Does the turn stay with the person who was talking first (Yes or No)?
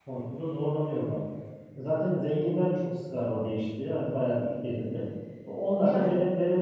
Yes